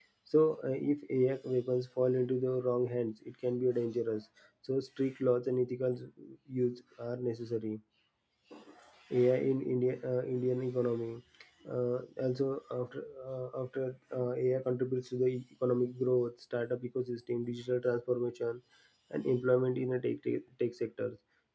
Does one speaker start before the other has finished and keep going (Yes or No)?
No